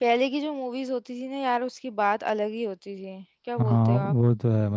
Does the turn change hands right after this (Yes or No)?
Yes